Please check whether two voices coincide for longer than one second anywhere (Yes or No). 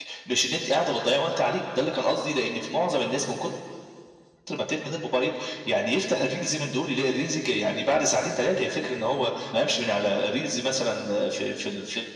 No